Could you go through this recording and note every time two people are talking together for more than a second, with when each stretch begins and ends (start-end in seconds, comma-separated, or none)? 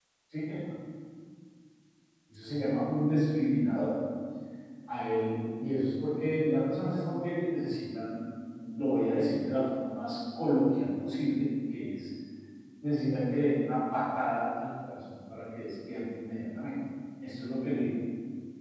none